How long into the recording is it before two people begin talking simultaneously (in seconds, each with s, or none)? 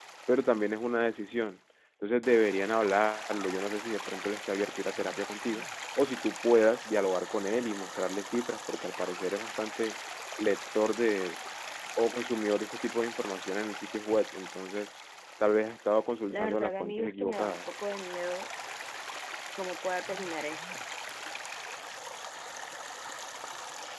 16.3 s